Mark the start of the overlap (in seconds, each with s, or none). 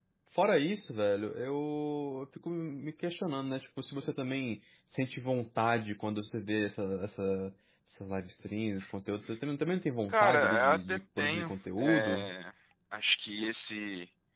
10.1 s